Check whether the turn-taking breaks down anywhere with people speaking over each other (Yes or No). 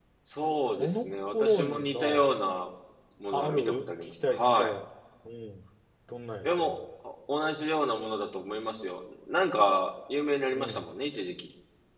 Yes